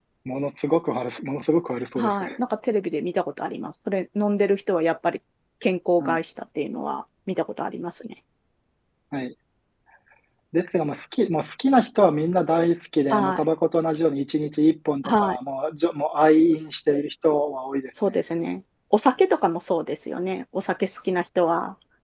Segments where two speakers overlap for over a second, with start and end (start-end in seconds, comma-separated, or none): none